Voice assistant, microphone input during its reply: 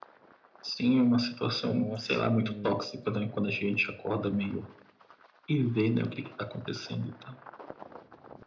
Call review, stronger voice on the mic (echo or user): echo